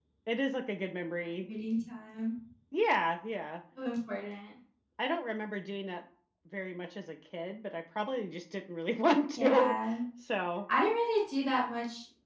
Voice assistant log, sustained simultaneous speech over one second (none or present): none